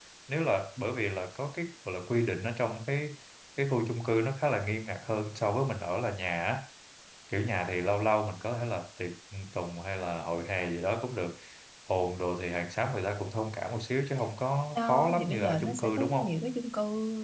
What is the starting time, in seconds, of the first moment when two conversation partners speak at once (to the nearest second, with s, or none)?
15 s